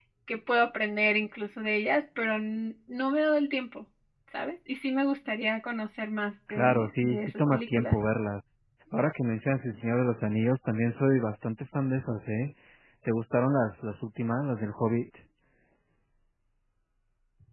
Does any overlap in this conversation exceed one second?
Yes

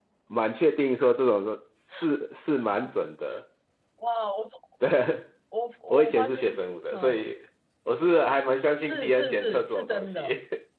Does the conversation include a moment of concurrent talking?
Yes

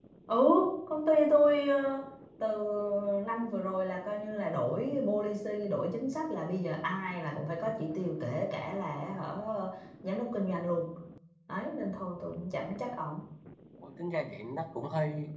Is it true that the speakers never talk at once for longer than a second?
Yes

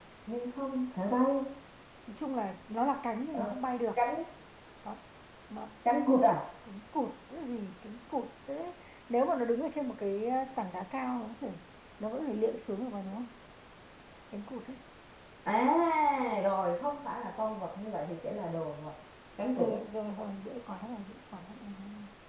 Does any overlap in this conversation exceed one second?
No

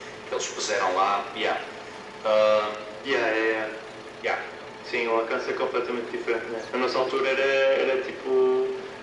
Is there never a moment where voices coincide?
Yes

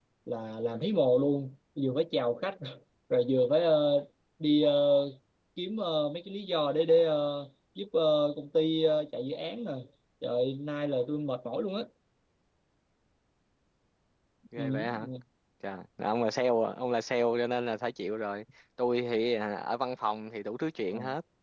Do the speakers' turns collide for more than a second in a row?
No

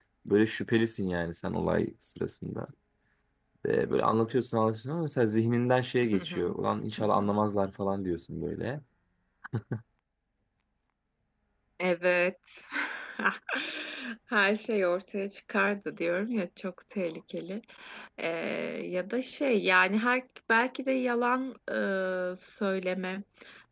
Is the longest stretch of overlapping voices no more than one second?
Yes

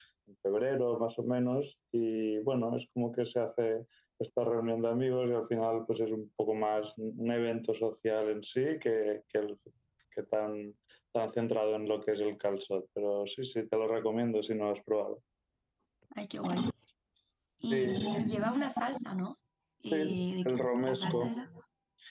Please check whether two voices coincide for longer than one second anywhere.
Yes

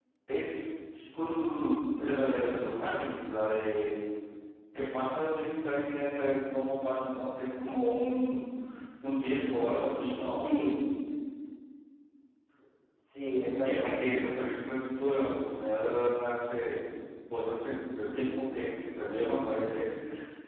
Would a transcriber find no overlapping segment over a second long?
Yes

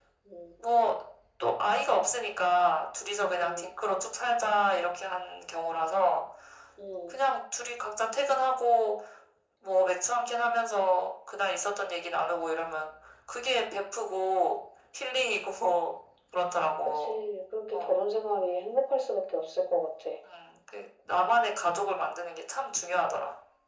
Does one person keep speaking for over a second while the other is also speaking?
No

